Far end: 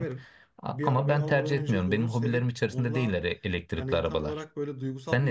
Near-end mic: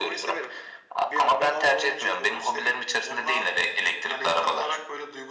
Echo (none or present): present